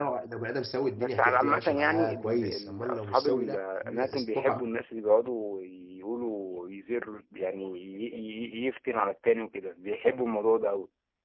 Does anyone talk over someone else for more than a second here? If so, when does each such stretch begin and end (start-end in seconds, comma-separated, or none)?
1.0-4.8